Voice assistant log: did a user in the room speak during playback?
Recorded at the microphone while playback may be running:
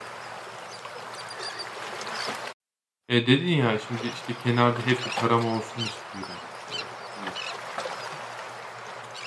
Yes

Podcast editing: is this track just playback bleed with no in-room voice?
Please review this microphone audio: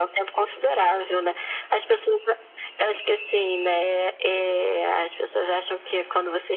Yes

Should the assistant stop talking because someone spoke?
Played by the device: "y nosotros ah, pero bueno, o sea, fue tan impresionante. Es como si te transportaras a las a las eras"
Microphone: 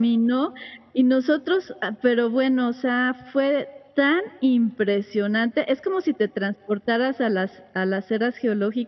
No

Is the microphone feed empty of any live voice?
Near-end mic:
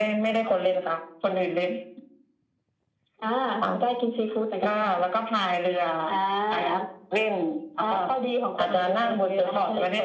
Yes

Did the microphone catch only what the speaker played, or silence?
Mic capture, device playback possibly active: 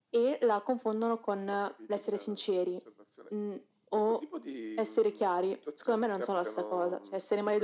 Yes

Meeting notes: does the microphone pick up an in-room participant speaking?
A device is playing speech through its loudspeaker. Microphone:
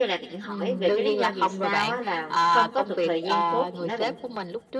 Yes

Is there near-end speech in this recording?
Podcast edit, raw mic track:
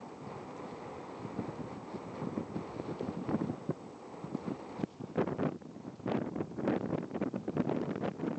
No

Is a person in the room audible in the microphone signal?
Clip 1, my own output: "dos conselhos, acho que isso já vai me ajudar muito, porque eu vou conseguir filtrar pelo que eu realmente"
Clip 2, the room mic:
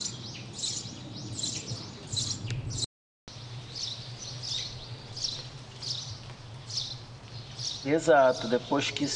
Yes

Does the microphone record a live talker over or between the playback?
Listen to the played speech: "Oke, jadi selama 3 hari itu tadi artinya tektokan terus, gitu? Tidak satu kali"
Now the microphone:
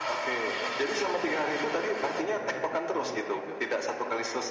Yes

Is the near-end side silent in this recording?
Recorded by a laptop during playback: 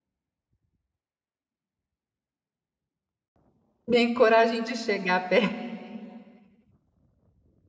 No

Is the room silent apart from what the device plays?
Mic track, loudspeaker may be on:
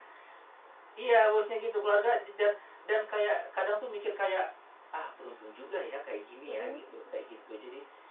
No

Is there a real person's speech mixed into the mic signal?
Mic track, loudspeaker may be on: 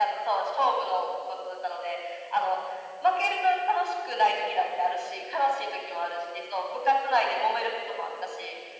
No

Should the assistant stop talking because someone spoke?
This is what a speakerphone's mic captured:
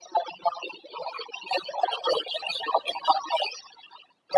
No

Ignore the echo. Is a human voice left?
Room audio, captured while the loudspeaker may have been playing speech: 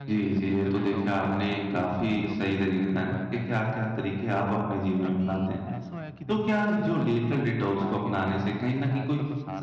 Yes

